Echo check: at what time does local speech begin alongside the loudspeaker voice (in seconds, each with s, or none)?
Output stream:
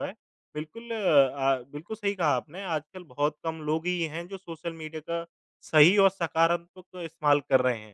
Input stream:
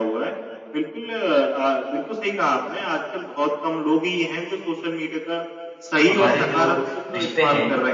6.1 s